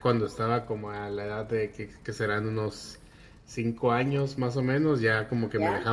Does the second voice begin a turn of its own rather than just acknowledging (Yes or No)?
No